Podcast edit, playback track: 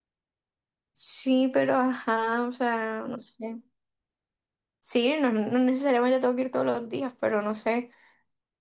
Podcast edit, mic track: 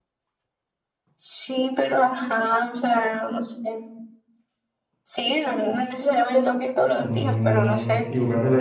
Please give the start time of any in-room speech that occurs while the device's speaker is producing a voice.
7.0 s

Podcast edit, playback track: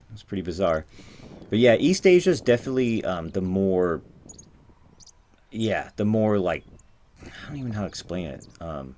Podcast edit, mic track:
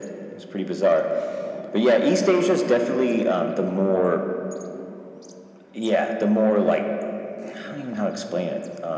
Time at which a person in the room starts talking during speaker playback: none

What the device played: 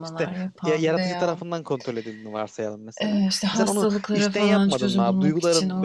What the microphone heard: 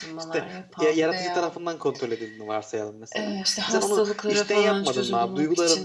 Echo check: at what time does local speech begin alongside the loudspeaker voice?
none

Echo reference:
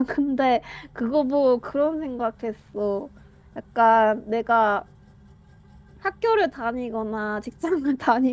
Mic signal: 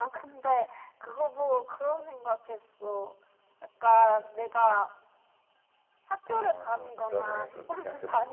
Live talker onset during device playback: 6.2 s

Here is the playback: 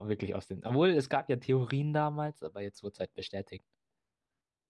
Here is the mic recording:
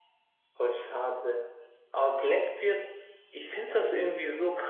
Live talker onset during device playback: 0.6 s

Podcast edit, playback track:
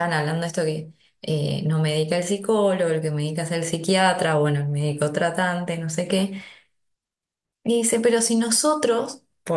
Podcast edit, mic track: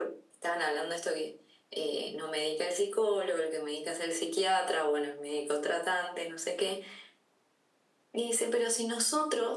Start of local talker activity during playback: none

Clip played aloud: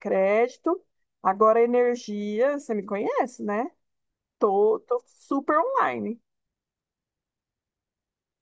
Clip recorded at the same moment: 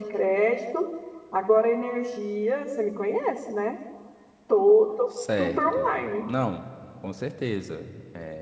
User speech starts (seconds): 5.0 s

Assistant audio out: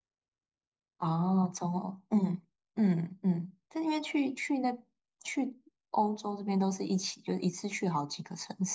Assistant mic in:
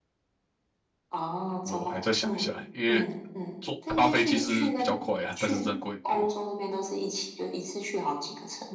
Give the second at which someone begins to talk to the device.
1.6 s

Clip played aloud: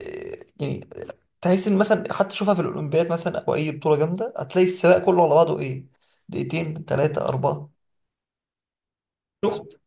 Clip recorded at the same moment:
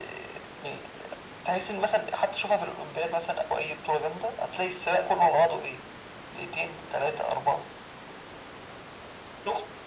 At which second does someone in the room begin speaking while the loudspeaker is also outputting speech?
none

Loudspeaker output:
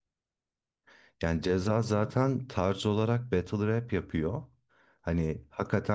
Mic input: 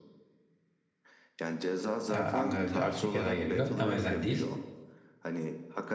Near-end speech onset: 2.1 s

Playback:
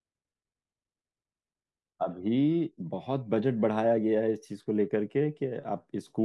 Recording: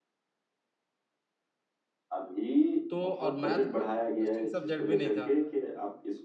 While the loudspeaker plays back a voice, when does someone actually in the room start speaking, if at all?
2.9 s

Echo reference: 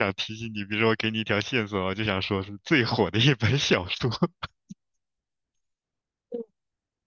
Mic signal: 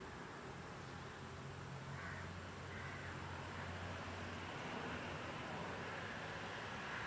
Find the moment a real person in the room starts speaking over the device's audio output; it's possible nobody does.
none

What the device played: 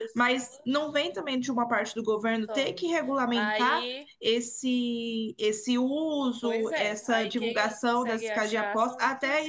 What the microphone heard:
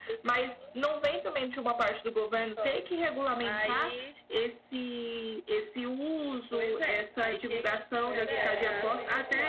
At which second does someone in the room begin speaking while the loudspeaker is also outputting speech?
8.0 s

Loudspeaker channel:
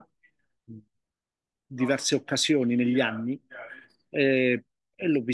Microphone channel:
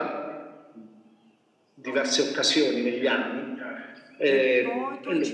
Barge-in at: 4.2 s

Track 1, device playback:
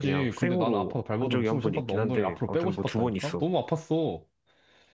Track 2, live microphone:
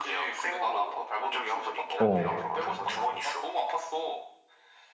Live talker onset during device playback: 2.0 s

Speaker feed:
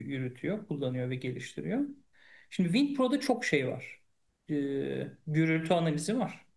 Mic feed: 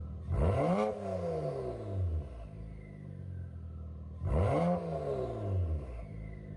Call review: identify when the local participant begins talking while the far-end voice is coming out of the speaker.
none

